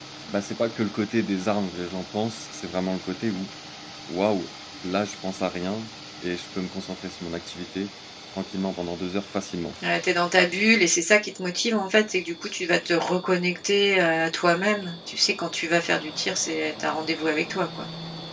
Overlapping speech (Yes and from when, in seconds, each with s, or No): No